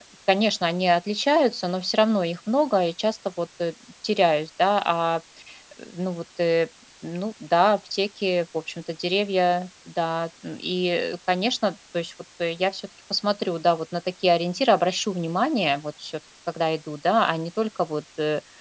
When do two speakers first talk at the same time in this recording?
none

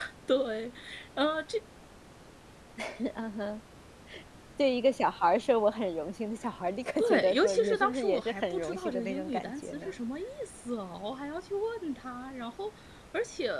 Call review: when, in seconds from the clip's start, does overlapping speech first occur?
7.0 s

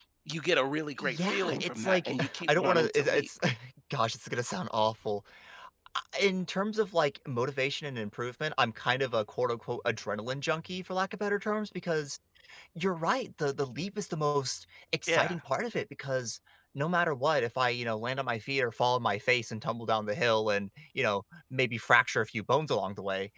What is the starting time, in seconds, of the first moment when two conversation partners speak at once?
1.0 s

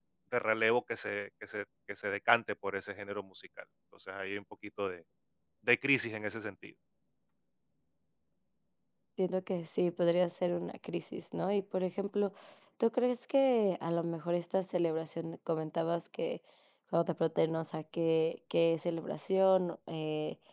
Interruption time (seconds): none

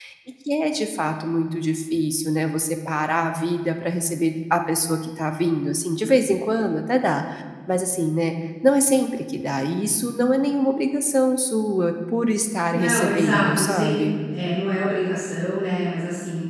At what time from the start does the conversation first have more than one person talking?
12.7 s

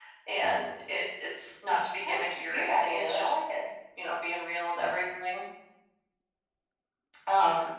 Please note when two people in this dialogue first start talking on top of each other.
2.0 s

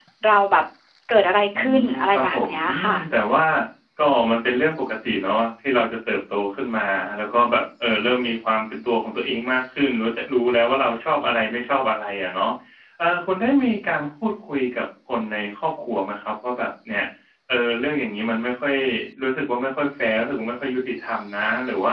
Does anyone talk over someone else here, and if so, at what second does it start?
1.5 s

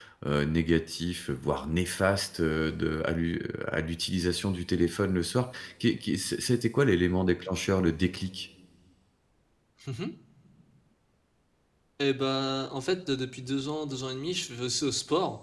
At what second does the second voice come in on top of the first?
none

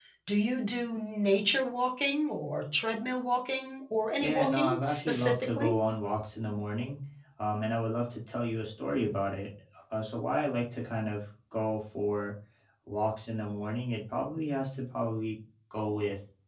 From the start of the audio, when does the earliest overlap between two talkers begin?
4.2 s

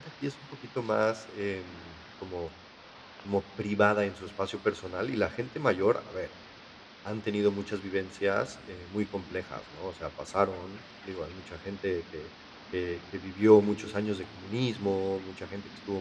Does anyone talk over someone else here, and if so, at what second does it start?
none

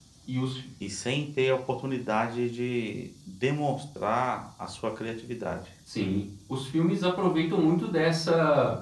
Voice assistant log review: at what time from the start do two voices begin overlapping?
none

